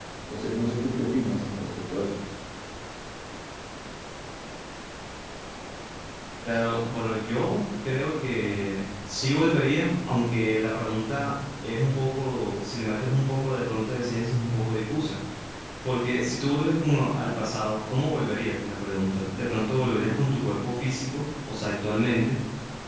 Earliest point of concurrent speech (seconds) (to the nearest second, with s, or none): none